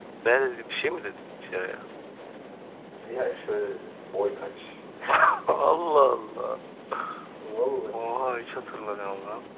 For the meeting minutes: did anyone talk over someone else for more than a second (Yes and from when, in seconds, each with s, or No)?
No